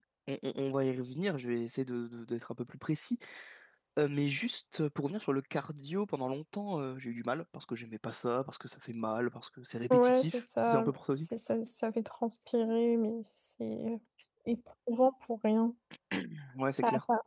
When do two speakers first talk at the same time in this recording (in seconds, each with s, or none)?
9.9 s